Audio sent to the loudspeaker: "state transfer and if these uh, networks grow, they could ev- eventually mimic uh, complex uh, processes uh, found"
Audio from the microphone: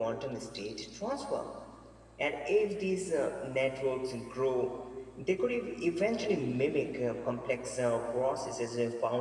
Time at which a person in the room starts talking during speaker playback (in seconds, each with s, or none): none